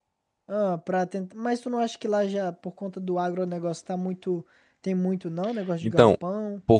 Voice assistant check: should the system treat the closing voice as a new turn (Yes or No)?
Yes